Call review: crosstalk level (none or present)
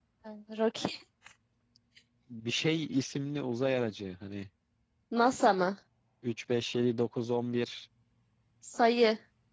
none